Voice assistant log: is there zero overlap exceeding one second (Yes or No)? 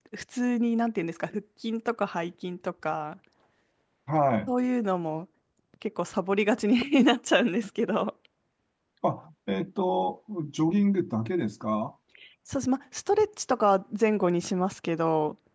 Yes